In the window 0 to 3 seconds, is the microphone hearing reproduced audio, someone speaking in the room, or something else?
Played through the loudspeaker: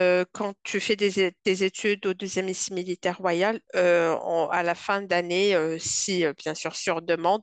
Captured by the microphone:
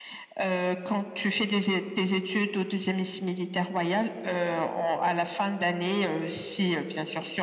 echo only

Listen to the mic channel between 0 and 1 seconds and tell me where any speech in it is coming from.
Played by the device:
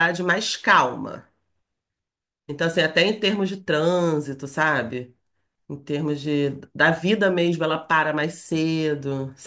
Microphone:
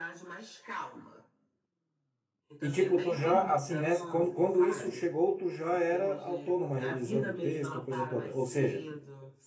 echo only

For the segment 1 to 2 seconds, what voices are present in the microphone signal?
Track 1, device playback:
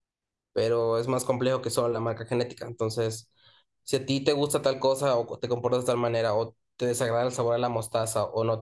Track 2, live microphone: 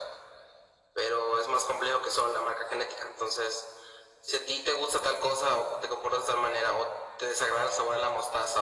echo only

